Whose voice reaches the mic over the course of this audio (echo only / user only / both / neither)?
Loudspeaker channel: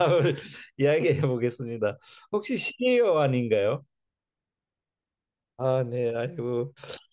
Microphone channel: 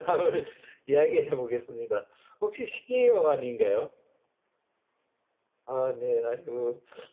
echo only